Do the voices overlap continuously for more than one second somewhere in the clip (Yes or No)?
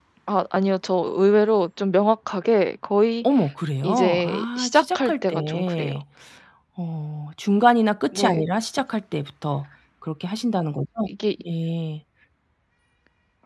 Yes